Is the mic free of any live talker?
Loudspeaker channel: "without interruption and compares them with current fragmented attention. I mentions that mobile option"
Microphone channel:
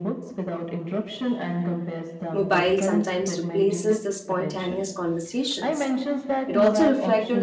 No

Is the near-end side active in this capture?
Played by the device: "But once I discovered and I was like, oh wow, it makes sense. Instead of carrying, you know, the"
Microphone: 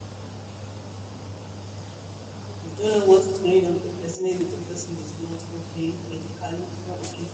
Yes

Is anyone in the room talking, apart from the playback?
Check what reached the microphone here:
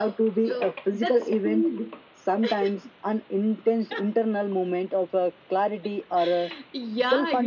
No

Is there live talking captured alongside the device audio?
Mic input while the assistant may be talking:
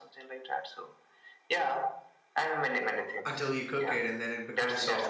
Yes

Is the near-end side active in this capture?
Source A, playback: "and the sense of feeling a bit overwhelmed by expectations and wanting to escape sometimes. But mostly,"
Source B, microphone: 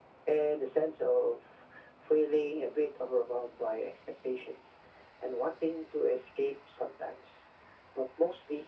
No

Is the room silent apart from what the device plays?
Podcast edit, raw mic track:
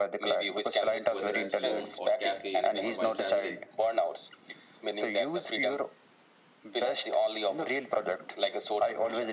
No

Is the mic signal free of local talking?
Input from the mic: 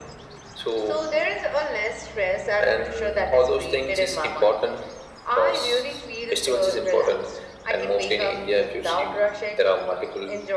Yes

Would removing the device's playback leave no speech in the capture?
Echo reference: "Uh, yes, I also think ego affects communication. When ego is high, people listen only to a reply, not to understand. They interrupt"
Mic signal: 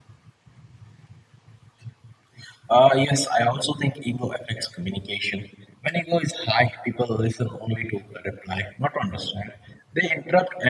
Yes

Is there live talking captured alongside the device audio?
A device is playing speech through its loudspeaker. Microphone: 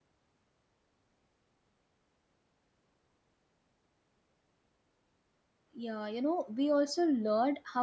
Yes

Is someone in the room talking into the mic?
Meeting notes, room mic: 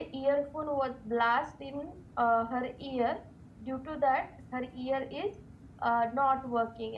No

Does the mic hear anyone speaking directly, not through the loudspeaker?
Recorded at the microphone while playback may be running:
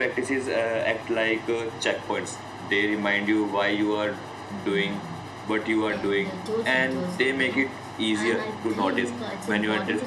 Yes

